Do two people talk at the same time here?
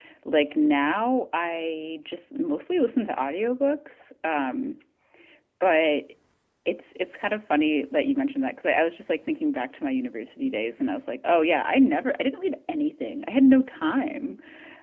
No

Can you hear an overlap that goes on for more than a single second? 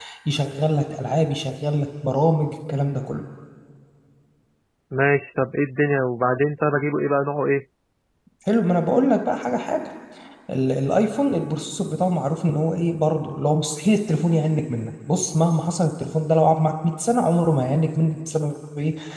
No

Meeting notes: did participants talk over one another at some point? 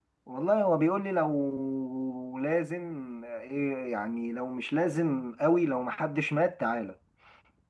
No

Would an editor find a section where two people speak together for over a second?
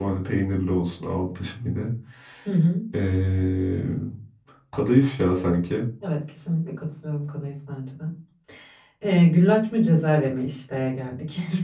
No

